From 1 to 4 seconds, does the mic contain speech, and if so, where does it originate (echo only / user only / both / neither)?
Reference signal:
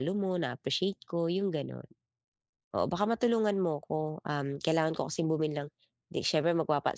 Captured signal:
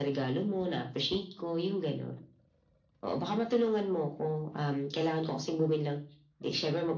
echo only